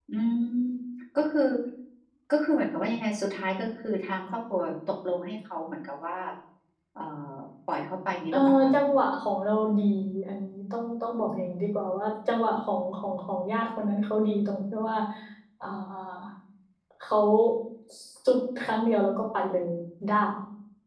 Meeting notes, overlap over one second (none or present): none